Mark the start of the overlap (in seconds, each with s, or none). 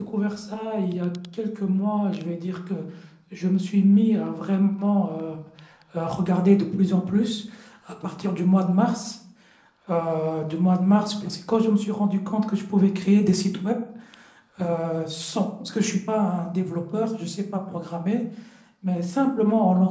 none